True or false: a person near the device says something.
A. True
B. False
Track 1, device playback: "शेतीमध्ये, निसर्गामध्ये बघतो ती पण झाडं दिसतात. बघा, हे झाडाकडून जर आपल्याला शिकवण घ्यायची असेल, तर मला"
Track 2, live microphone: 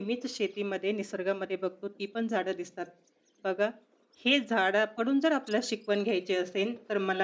B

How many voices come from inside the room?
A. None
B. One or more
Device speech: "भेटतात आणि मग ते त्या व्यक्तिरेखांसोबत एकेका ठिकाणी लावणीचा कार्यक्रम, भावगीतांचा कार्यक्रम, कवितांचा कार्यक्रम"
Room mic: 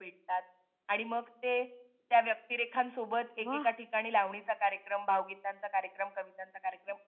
B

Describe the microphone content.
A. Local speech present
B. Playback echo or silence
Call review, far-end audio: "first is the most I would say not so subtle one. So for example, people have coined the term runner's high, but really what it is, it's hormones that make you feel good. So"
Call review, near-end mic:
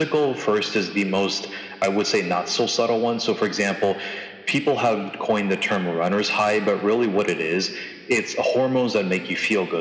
B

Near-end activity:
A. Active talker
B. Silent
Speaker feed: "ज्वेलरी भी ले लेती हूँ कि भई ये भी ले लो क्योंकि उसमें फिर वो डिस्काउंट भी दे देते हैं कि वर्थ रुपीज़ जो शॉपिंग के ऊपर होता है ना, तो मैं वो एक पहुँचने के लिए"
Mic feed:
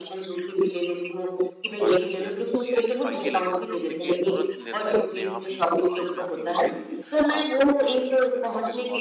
A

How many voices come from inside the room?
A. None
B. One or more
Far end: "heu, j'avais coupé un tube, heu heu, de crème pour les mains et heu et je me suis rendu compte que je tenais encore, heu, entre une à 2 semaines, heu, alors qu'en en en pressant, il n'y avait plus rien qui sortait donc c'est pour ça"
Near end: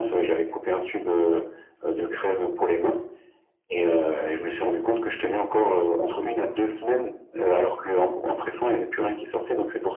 A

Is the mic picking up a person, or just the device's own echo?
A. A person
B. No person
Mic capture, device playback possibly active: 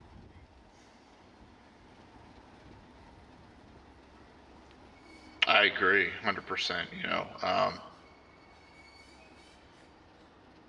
A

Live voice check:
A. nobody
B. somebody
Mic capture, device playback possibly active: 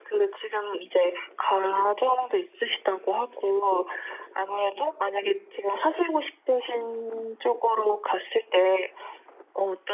A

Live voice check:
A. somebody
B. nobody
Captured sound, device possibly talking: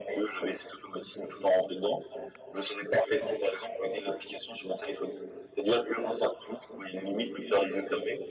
B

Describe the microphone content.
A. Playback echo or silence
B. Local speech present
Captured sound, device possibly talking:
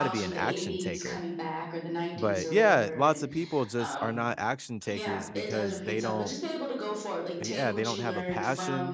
B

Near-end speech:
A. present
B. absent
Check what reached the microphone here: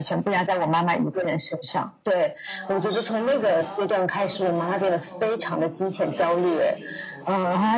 A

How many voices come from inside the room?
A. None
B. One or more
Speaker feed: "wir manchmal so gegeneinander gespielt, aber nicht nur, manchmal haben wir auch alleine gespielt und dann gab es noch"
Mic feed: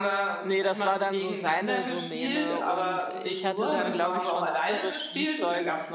B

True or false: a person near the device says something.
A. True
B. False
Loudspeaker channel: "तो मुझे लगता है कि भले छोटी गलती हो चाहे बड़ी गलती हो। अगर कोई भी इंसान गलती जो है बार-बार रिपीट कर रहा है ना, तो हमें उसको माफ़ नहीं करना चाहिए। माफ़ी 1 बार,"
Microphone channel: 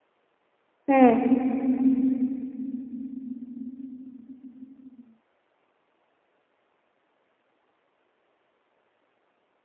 A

